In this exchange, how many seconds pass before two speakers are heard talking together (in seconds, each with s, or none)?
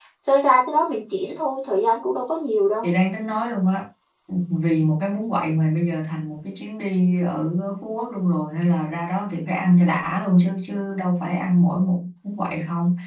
none